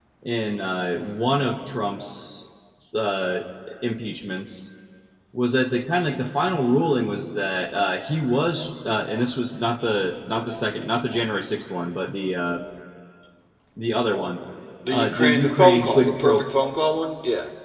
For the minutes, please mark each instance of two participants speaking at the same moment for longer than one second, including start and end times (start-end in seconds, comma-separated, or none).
14.9-16.4